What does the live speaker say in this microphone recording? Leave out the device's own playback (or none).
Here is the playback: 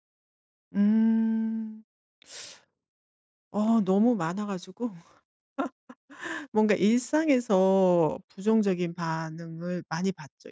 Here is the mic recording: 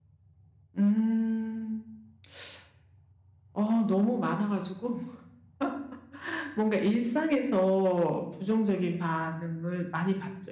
none